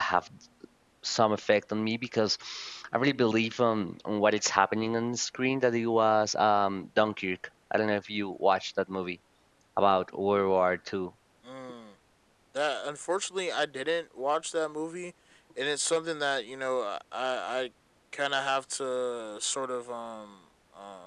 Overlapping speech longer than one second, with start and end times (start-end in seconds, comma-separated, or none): none